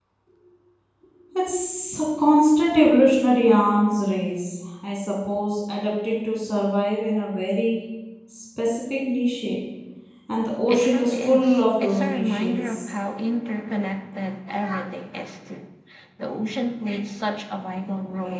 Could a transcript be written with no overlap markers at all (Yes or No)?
No